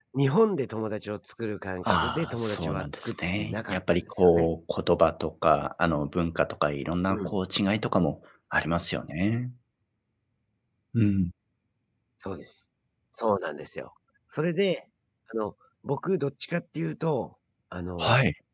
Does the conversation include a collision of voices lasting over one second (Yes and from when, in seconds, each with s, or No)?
Yes, from 1.8 s